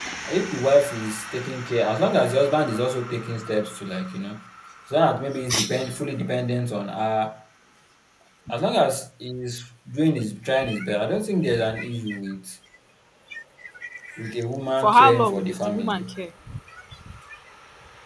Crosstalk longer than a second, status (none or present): present